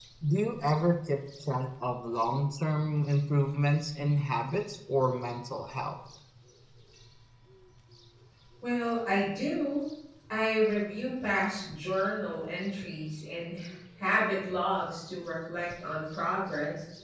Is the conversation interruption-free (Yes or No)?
Yes